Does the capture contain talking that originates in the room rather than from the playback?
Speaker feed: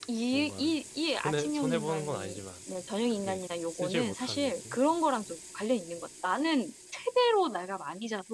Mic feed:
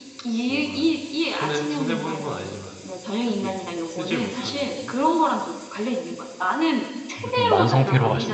Yes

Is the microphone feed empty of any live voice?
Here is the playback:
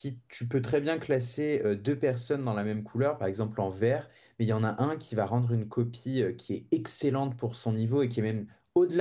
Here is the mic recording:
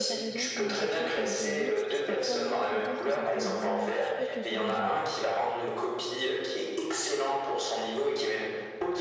No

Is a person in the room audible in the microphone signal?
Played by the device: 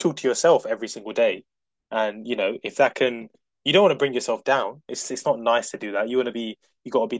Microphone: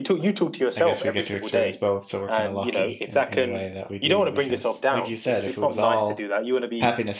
Yes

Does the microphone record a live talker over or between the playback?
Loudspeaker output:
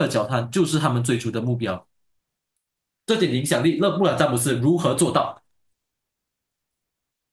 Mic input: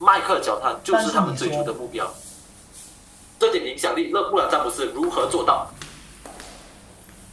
Yes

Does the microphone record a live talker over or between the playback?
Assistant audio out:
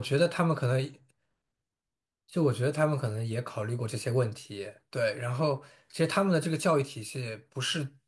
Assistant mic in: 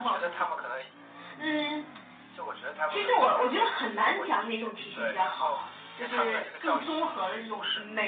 Yes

